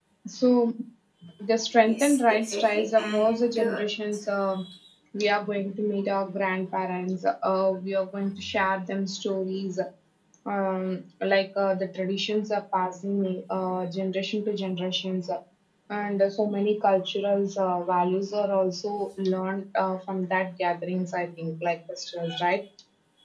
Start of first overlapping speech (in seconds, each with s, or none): 1.9 s